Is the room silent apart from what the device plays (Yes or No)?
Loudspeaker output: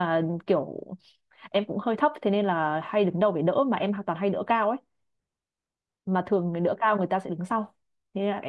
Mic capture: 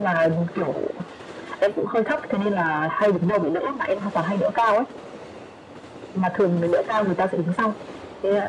Yes